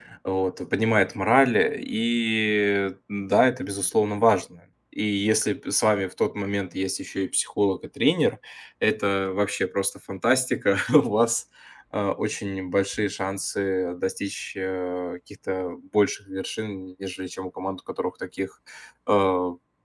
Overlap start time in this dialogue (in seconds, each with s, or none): none